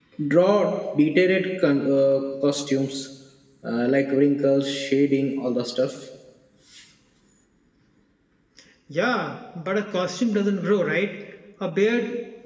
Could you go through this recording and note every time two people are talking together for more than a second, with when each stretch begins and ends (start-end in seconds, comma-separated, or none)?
none